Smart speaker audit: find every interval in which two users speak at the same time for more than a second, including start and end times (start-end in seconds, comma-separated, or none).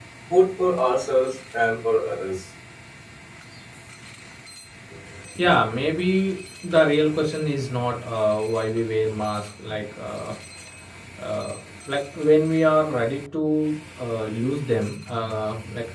none